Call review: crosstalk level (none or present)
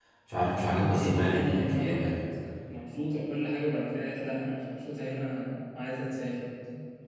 present